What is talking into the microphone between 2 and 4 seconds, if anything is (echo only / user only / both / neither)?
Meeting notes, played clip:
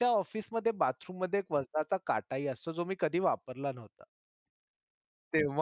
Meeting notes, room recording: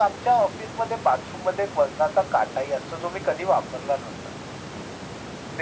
echo only